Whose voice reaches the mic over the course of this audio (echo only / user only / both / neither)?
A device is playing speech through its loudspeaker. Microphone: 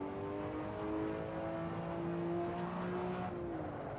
neither